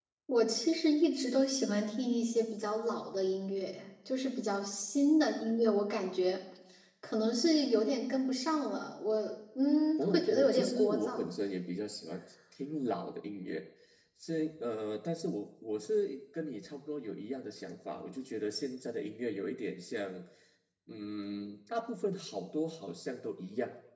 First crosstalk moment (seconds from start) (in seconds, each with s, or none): 10.0 s